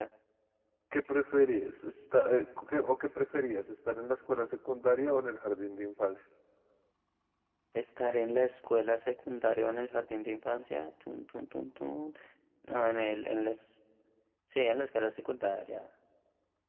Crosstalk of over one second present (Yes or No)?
No